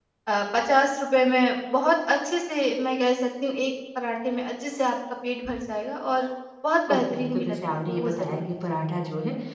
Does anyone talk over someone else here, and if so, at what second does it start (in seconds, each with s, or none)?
6.9 s